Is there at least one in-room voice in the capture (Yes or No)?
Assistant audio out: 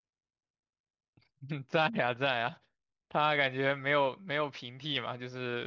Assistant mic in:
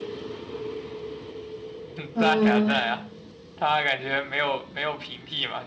Yes